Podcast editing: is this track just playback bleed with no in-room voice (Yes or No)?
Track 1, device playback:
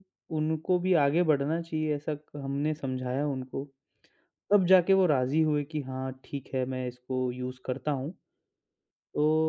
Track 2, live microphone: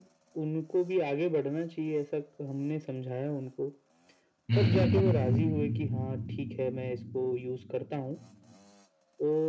No